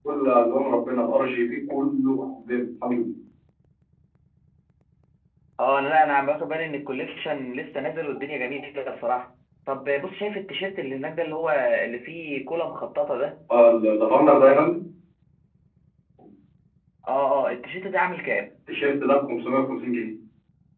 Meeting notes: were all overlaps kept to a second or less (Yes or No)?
Yes